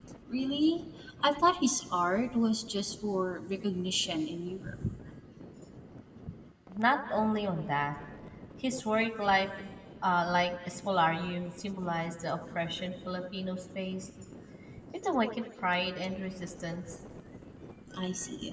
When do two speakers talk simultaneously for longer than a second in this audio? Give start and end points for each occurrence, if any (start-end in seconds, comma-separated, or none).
none